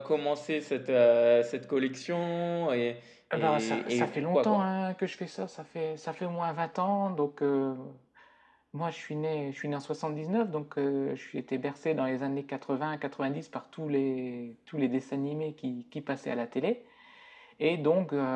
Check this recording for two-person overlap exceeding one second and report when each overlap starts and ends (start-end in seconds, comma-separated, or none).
3.3-4.7